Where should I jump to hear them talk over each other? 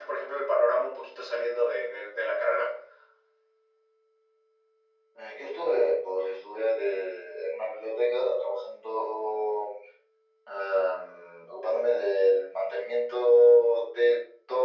none

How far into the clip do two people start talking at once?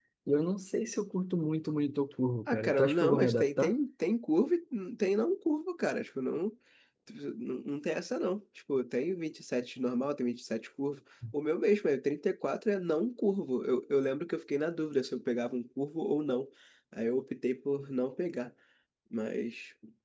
2.5 s

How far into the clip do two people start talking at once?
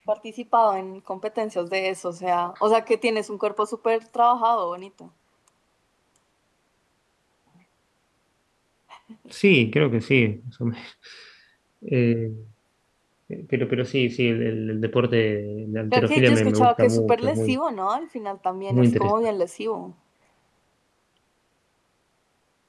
15.9 s

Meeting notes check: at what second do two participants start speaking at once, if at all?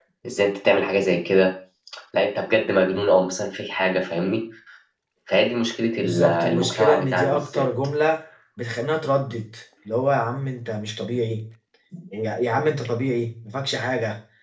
6.0 s

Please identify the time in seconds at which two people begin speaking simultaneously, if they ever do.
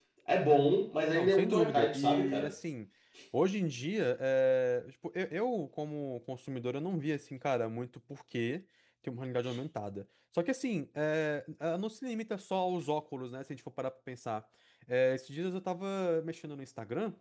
1.1 s

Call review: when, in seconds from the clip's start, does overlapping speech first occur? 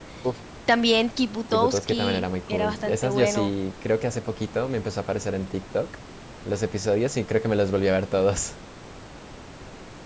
1.5 s

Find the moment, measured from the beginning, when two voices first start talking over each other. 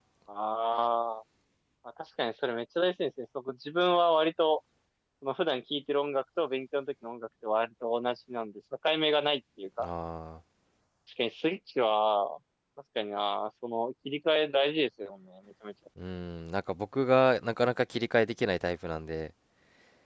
none

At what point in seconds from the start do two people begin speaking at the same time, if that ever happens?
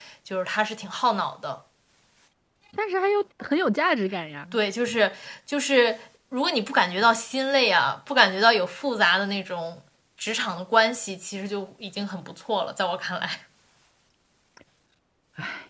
none

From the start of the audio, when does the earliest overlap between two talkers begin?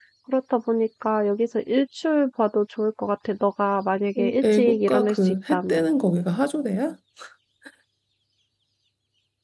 4.2 s

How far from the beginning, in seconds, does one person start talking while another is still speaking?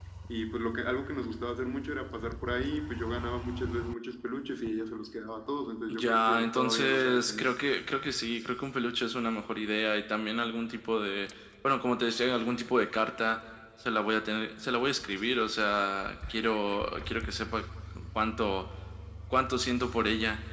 5.9 s

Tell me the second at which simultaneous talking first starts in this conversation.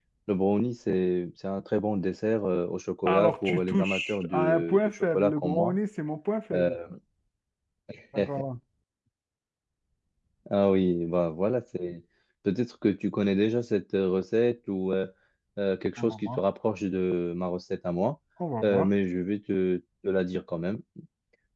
3.1 s

